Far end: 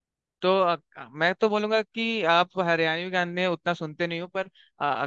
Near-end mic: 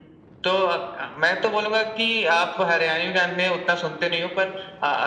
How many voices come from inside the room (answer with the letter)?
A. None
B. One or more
A